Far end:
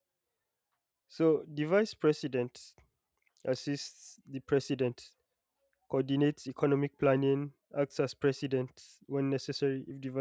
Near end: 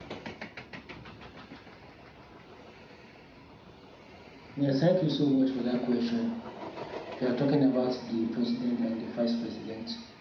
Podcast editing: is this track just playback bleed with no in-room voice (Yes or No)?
No